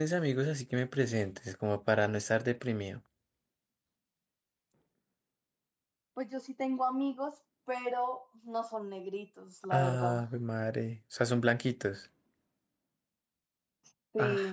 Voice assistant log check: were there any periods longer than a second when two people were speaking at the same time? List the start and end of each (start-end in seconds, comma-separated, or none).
none